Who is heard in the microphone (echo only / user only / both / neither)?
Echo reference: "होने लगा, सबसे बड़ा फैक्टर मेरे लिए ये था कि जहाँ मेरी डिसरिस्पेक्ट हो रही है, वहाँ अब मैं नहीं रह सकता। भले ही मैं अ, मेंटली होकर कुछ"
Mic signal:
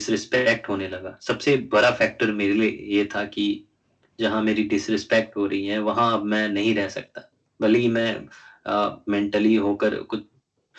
echo only